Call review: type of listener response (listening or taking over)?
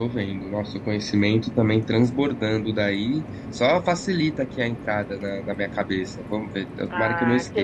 taking over